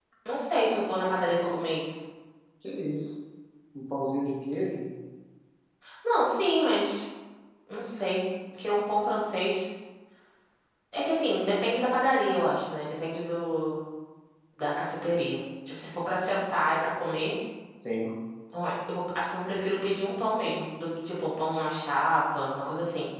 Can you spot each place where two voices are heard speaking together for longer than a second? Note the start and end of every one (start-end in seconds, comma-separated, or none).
none